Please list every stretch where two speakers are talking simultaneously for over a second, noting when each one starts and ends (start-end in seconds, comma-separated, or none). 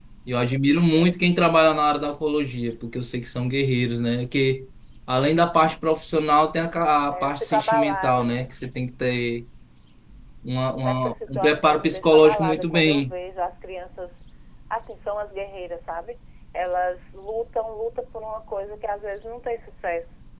7.1-8.4, 10.8-13.1